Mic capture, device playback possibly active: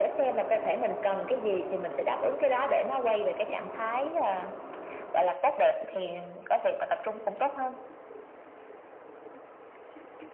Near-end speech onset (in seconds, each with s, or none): none